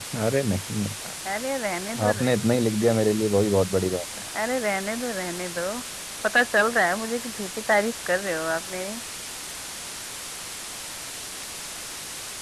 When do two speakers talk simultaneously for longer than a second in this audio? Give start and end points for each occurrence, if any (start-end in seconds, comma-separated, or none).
none